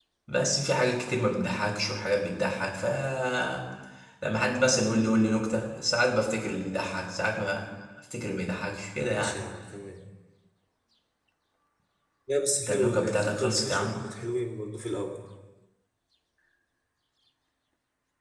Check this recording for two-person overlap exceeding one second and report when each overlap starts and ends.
12.7-14.0

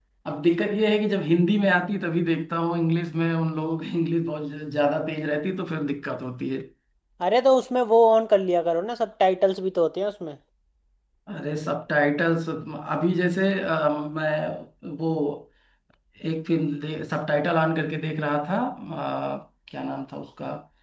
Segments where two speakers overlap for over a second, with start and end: none

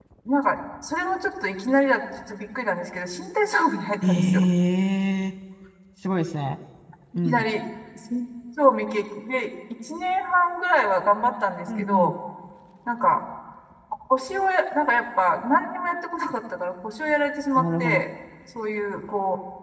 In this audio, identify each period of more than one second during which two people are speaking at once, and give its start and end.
none

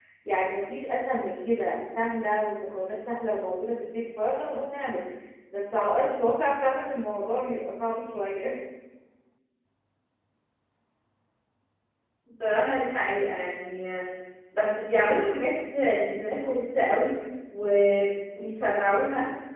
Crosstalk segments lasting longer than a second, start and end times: none

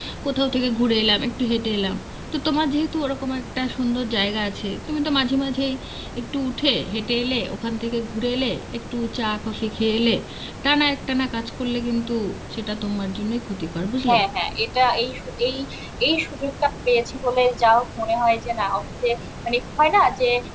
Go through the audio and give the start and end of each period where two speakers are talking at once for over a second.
none

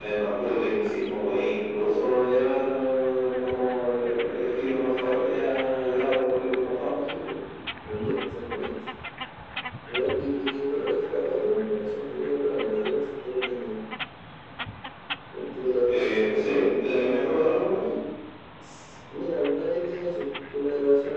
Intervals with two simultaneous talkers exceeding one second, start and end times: 15.9-17.2

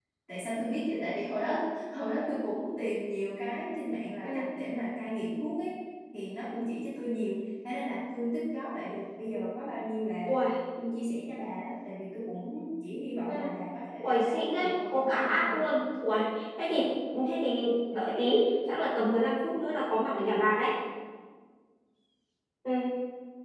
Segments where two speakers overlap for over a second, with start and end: 14.0-15.6

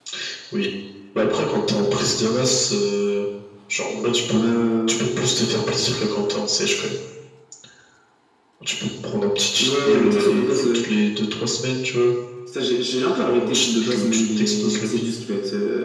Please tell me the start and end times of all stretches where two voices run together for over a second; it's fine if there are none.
9.6-10.9, 13.2-15.2

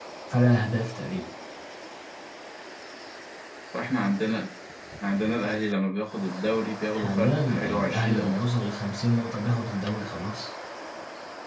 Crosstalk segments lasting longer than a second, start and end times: 6.9-8.4

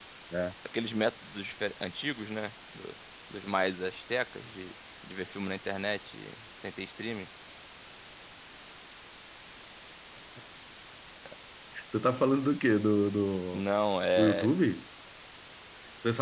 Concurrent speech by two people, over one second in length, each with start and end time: none

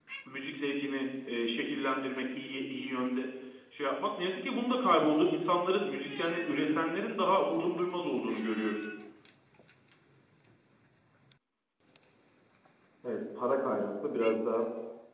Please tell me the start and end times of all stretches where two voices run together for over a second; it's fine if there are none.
none

